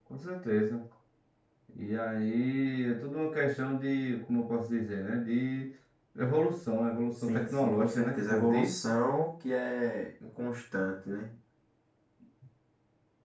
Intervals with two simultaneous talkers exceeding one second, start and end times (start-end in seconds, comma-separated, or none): 7.3-8.7